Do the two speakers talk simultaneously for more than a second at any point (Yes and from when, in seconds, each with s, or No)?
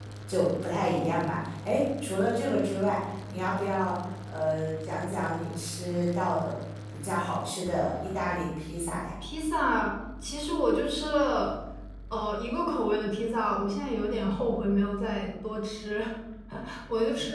No